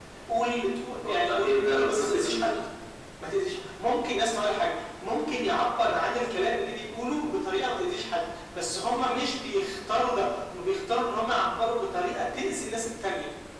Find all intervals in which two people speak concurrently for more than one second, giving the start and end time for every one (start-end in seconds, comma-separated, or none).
1.0-2.6